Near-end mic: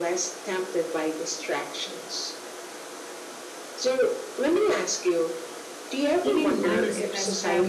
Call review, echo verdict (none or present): present